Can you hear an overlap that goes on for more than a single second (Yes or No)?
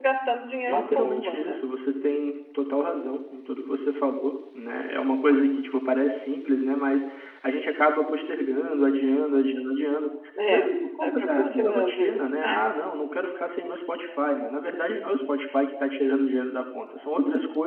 Yes